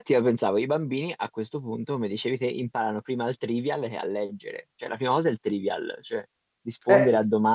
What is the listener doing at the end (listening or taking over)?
listening